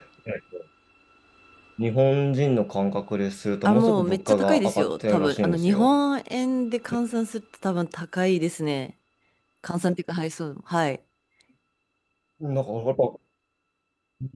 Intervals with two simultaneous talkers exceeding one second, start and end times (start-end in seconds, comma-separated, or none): 3.6-5.9